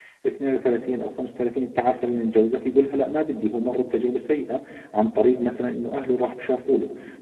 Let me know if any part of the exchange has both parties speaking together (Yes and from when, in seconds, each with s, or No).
No